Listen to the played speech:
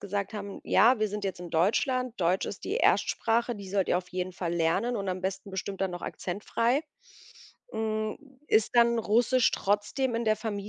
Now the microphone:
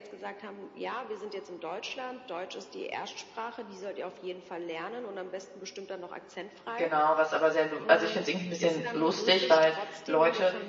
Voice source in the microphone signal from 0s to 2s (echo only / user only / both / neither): echo only